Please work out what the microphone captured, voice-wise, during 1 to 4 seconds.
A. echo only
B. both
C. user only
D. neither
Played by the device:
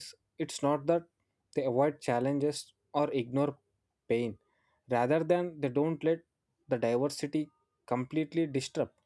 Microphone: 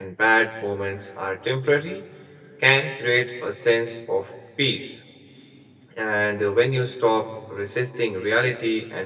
C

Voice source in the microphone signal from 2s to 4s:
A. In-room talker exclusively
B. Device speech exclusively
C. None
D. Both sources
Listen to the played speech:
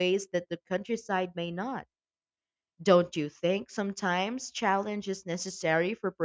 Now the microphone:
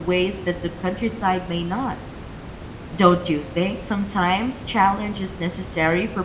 B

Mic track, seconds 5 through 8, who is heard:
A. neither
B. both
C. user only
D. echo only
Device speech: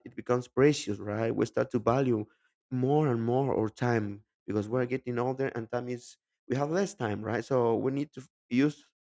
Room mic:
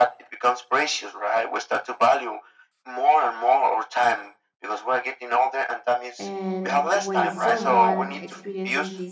B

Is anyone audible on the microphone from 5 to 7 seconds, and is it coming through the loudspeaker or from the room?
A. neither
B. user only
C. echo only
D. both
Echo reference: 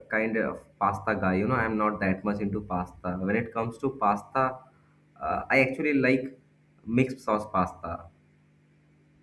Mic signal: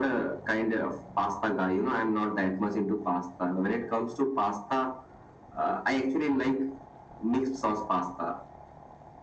C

